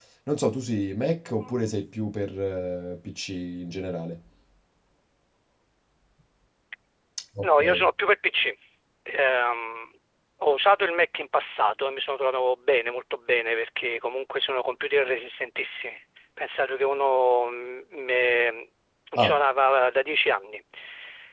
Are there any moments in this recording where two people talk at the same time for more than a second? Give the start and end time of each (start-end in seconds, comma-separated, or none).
none